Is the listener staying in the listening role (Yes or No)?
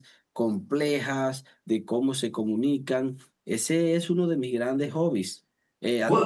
No